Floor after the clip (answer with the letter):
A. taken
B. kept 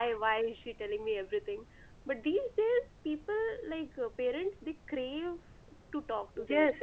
A